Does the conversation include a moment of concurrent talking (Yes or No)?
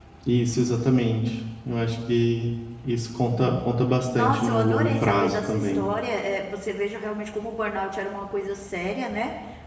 Yes